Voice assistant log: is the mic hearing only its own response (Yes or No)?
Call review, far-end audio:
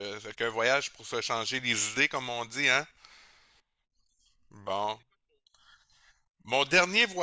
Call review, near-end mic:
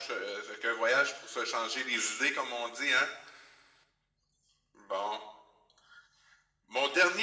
Yes